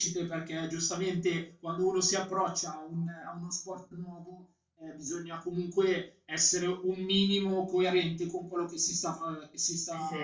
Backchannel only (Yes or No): Yes